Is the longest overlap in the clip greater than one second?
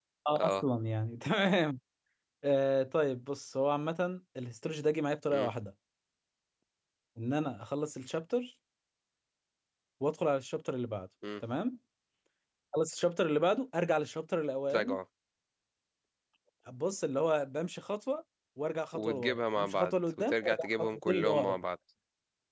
Yes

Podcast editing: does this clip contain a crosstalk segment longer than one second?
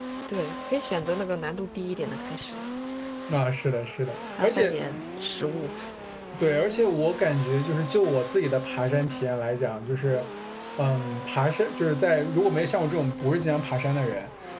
No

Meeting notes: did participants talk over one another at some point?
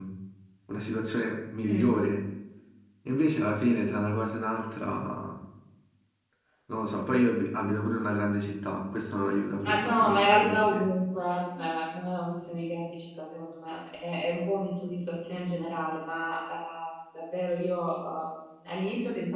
Yes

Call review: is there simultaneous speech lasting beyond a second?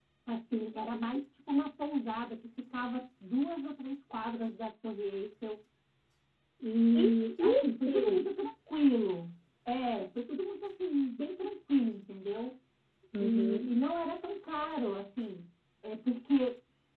Yes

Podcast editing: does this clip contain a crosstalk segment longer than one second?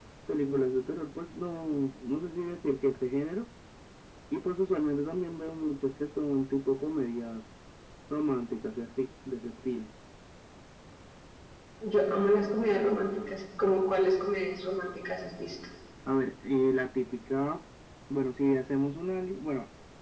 No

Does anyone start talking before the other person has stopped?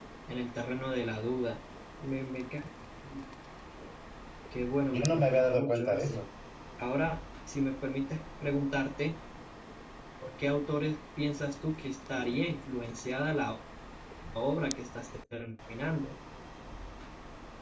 Yes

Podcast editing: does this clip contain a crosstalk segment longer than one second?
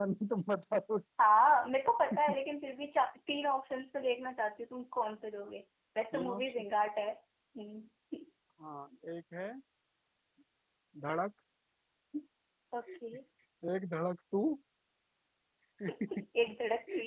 No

